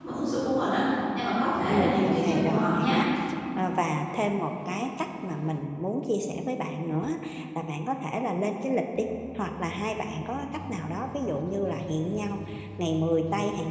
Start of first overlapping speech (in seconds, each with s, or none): 1.7 s